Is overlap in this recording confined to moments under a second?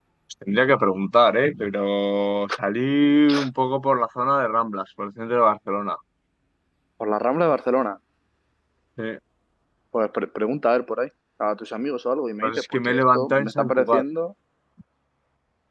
No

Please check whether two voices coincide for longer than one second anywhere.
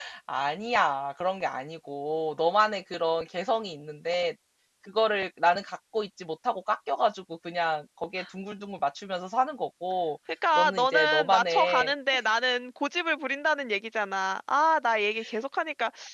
Yes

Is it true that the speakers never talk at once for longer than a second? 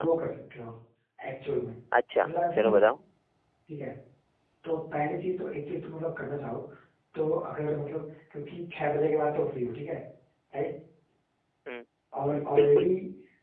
Yes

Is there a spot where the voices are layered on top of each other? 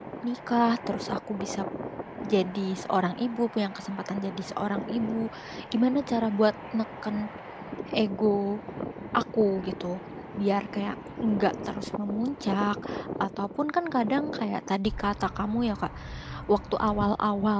No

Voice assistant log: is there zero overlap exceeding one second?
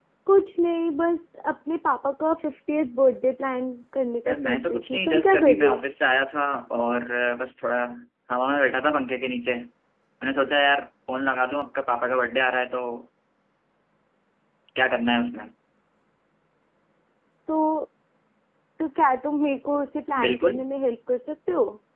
No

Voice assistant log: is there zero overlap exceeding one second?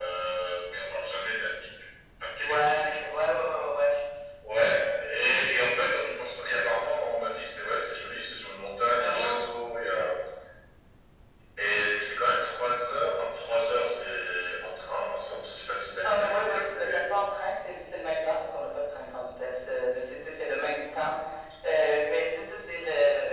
No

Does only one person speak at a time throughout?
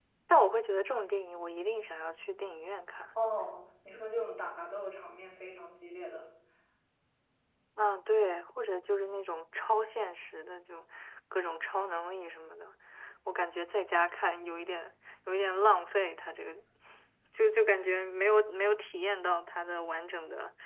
Yes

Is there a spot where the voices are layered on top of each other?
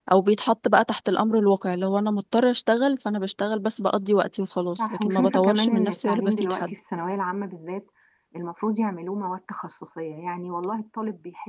Yes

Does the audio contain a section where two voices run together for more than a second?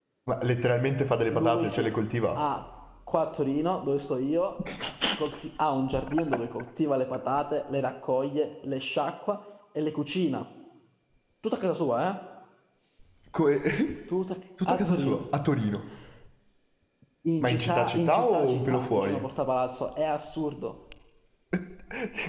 Yes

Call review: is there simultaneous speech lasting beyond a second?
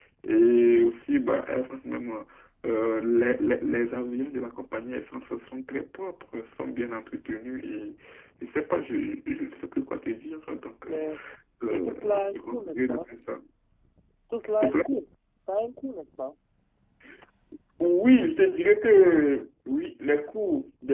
Yes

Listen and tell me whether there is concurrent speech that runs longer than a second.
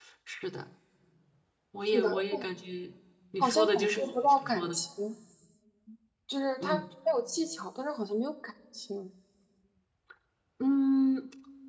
Yes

